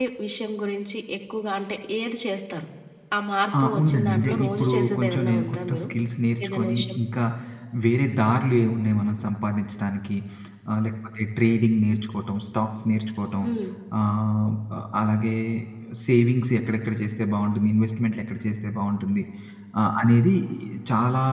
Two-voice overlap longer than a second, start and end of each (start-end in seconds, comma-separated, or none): 3.6-5.8